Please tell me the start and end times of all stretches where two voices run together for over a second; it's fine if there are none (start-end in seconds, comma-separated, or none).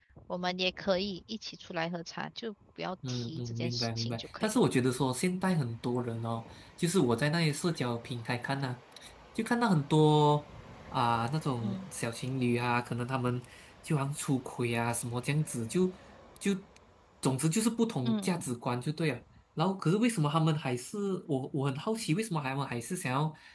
3.1-4.6